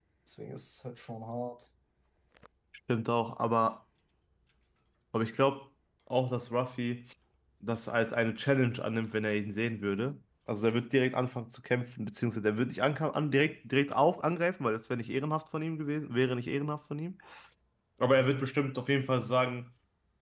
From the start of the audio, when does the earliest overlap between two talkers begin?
none

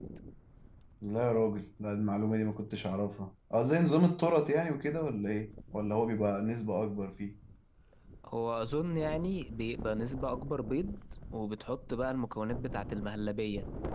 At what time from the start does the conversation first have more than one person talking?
none

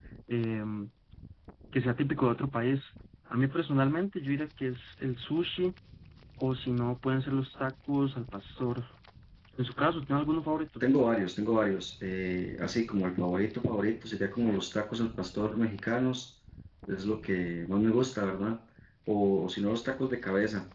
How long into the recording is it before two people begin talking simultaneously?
none

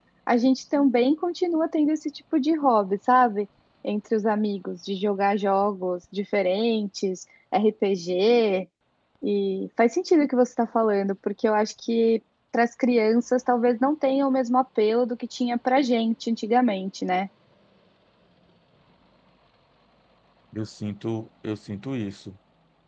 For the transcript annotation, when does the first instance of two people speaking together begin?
none

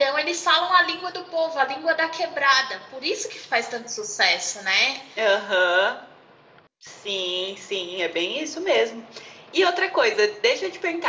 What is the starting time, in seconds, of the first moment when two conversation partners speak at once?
none

